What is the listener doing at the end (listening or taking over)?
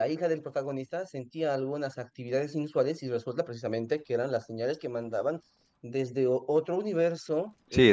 listening